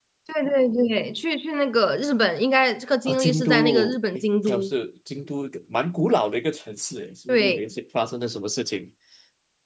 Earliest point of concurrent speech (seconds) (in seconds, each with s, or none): 3.1 s